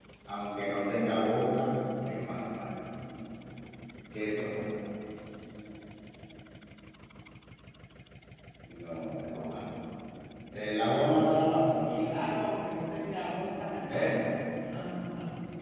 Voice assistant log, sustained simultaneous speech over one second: none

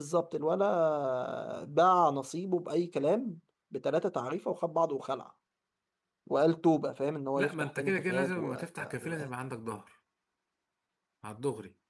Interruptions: present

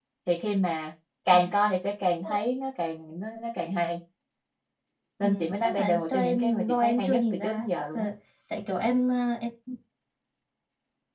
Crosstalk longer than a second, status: present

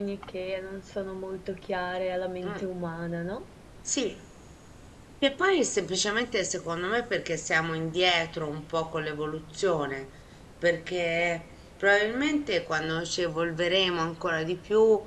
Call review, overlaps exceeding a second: none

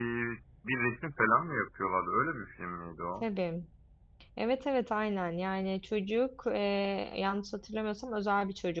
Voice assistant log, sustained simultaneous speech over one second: none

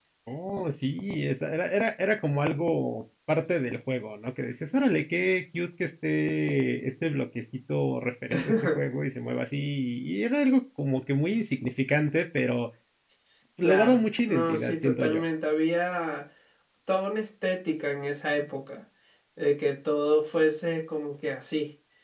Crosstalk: present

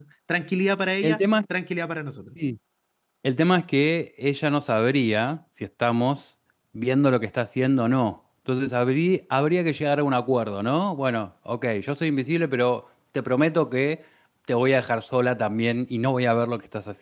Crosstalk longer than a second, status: none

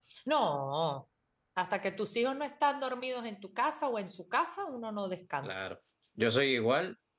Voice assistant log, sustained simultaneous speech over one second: none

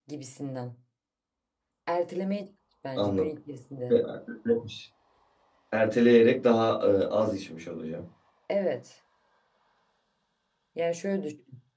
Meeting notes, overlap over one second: none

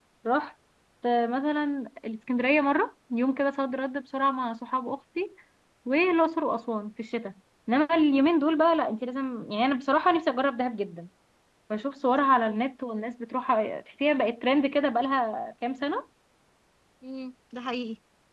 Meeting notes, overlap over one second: none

